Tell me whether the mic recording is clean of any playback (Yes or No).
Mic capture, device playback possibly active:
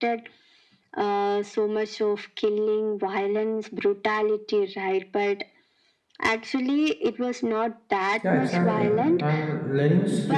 No